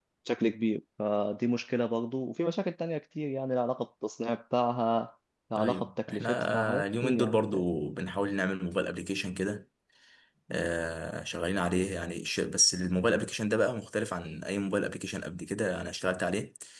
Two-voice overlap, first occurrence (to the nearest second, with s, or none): 6 s